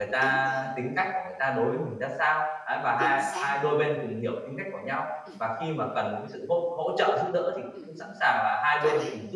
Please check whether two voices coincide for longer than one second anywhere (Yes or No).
No